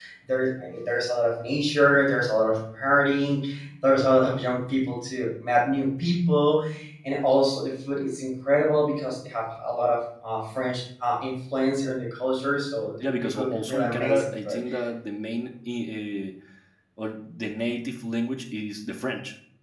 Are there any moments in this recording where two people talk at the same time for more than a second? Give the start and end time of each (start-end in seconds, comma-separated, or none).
13.0-14.6